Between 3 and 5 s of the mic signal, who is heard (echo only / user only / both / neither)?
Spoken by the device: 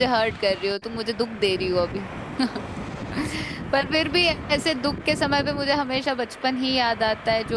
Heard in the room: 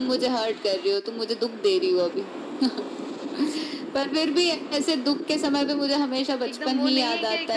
echo only